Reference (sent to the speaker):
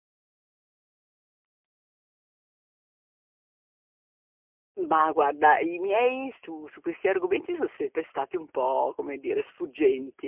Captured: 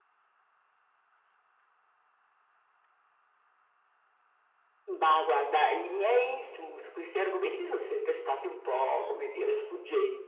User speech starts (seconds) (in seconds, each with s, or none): 8.7 s